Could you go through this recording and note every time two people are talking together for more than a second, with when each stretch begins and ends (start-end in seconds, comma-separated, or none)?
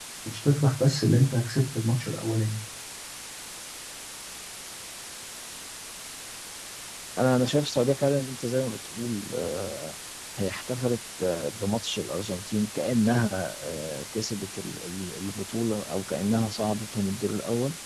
none